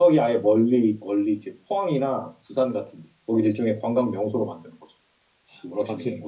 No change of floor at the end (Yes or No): No